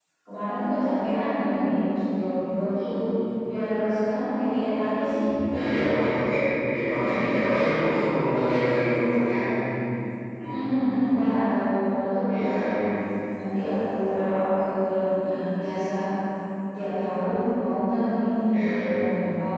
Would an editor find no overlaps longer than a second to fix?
Yes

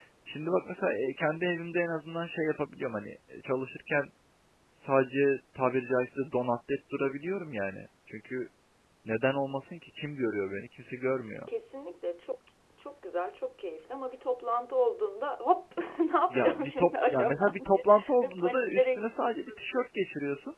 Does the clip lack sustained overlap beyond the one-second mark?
No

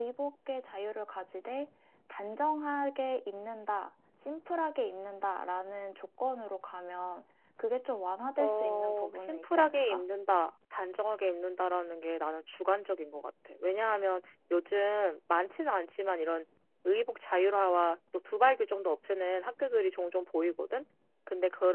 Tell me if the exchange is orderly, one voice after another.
No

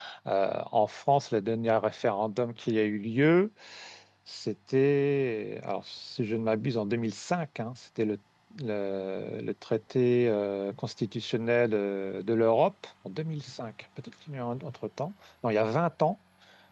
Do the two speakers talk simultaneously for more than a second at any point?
No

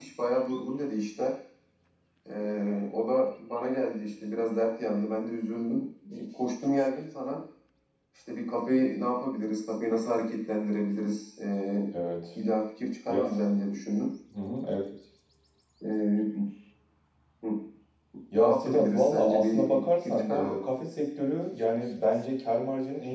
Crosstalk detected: Yes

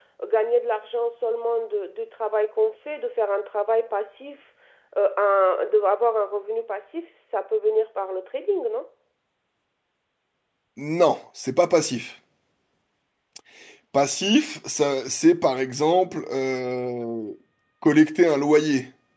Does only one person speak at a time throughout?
Yes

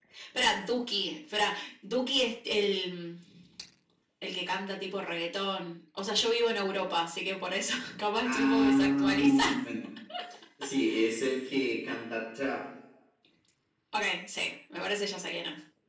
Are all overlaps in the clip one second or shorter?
No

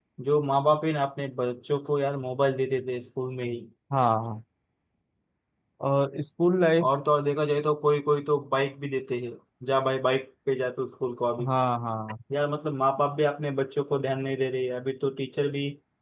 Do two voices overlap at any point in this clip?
No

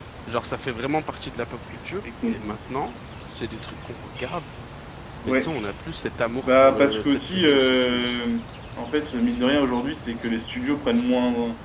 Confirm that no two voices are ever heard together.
No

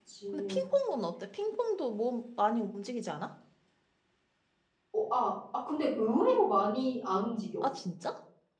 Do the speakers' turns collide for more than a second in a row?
No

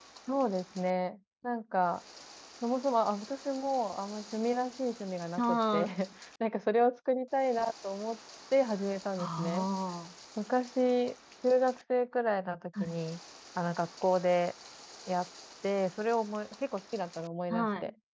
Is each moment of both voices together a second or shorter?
Yes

